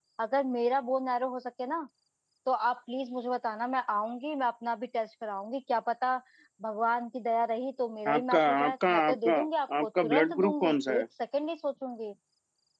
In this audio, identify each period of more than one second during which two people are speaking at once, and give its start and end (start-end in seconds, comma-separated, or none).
8.1-9.4, 9.8-11.0